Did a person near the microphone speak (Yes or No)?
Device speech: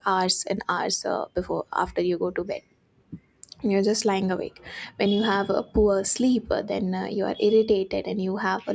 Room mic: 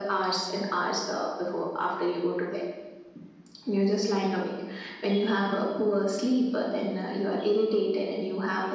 No